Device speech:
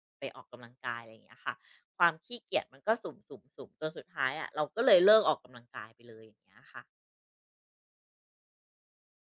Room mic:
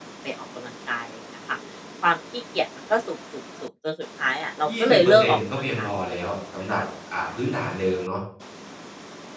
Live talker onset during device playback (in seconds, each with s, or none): 4.7 s